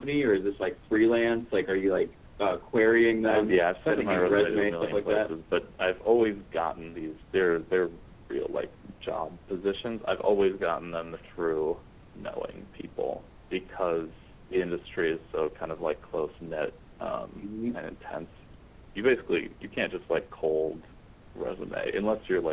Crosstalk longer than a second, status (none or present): present